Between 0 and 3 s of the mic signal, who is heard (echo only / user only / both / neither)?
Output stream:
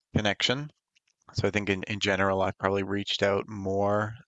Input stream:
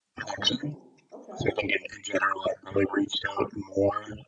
both